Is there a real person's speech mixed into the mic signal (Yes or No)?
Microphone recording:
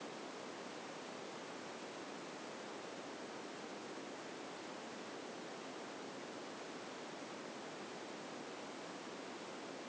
No